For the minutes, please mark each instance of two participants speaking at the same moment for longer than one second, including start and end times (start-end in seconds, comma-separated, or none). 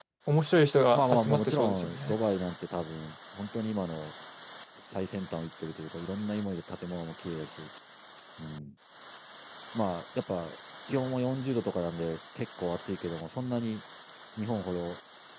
0.9-2.1